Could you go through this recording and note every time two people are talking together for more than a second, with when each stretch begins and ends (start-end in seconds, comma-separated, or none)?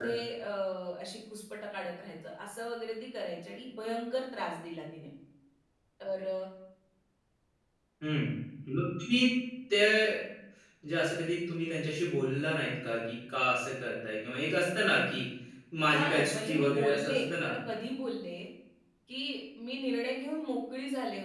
15.9-17.5